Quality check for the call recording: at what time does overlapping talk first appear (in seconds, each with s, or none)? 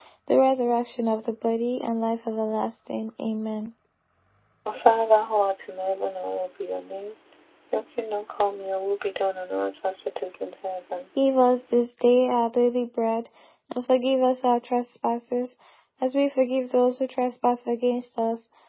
none